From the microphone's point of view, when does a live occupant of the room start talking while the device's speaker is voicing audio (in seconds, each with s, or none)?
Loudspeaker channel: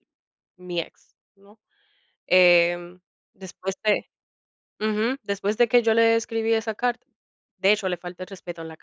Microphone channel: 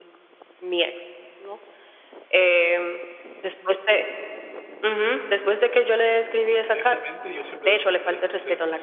6.6 s